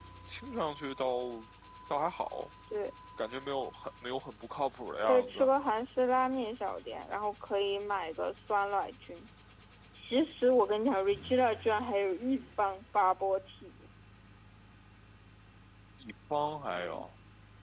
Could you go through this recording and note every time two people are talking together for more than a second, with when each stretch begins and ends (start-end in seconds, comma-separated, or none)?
none